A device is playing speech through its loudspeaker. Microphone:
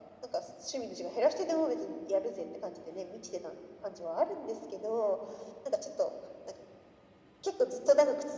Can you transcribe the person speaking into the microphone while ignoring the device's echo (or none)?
none